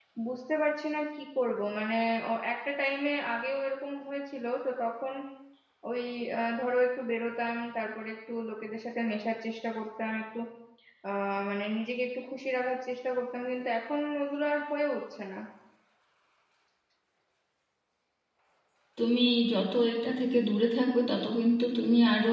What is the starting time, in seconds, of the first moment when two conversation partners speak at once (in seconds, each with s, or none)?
none